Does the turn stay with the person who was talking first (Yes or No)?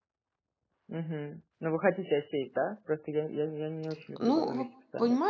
No